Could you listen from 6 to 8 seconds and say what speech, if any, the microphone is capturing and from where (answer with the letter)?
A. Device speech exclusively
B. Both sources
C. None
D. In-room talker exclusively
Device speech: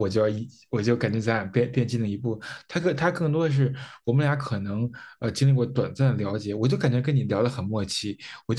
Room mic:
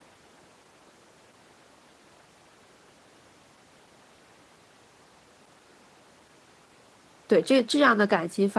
D